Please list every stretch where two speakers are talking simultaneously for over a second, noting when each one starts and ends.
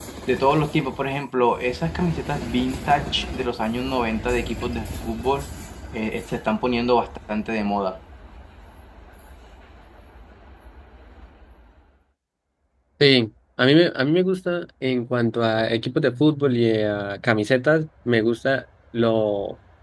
none

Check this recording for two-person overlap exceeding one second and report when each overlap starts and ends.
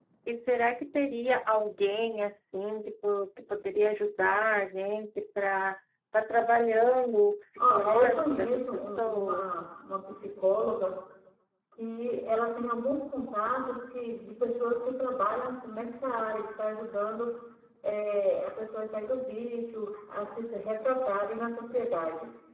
7.6-9.4

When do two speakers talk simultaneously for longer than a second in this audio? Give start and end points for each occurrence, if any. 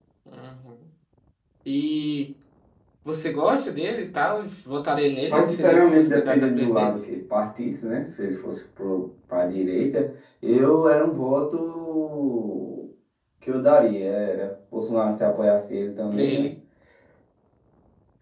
5.3-6.9

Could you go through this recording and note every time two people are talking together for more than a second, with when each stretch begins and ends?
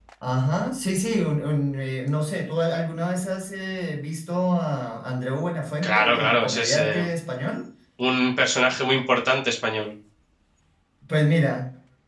5.8-7.0

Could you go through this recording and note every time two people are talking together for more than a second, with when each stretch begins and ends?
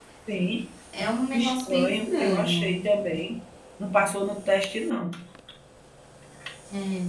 1.3-2.8

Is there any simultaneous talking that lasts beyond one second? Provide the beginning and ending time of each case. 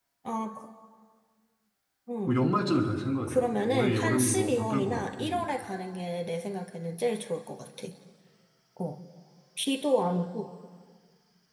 3.2-5.4

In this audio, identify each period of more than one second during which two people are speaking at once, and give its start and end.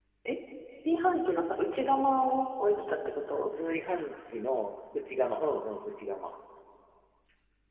none

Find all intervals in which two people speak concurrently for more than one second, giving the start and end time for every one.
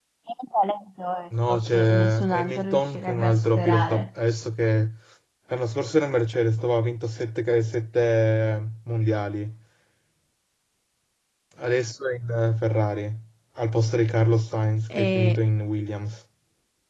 1.5-4.1

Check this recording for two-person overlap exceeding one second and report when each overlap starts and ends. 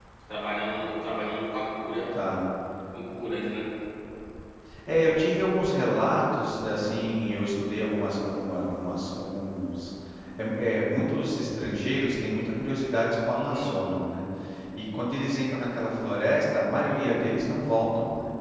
none

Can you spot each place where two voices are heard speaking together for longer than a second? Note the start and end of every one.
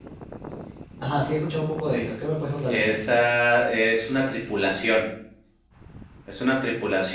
none

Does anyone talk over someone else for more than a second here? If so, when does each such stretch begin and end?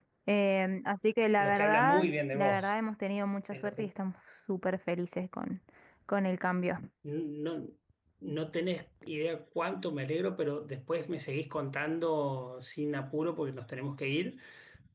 1.4-2.7

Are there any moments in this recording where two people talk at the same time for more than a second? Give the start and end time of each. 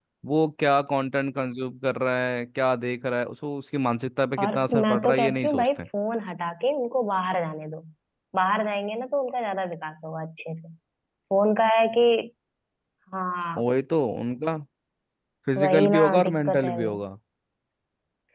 4.4-5.7, 15.6-17.0

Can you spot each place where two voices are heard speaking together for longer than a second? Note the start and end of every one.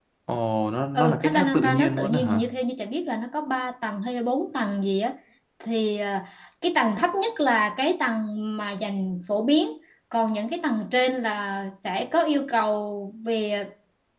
0.9-2.4

